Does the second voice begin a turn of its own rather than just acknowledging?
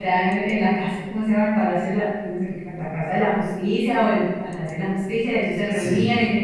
No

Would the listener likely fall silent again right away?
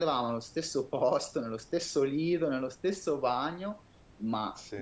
Yes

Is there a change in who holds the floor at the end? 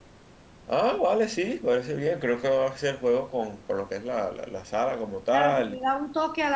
Yes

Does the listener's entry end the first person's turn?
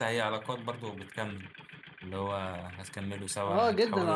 Yes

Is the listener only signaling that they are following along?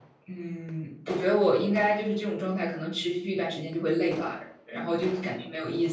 Yes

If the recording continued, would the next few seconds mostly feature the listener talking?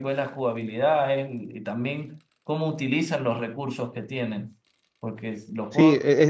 Yes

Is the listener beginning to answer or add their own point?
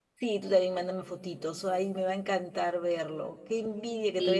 No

